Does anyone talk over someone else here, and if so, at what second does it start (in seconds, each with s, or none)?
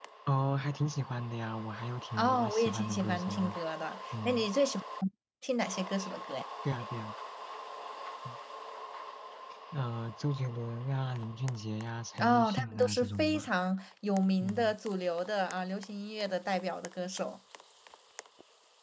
2.2 s